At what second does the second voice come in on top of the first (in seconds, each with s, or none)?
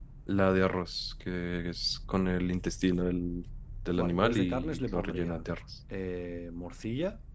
4.0 s